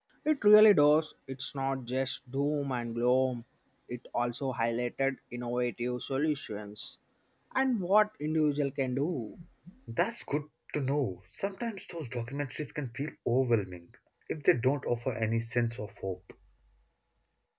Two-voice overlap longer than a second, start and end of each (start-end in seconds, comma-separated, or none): none